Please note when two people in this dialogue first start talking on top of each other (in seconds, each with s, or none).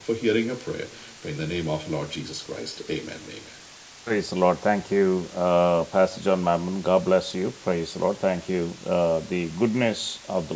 none